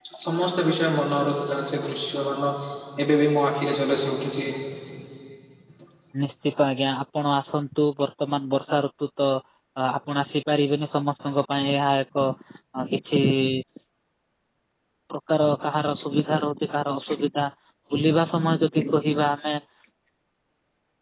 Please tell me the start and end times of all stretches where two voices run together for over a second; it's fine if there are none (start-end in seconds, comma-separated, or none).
none